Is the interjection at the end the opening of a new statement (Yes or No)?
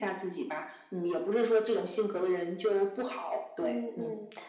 Yes